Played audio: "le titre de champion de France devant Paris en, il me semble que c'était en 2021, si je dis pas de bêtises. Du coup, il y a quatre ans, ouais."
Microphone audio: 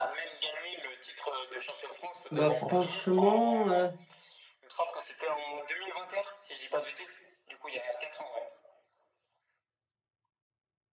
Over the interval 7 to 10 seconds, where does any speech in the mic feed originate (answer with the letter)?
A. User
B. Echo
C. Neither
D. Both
B